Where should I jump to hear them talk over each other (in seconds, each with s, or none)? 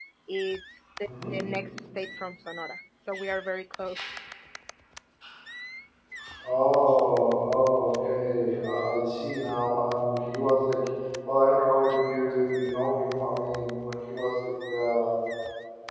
none